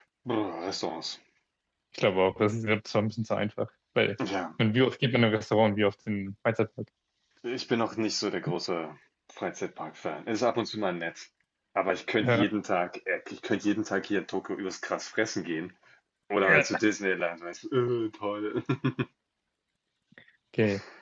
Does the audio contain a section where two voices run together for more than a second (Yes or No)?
No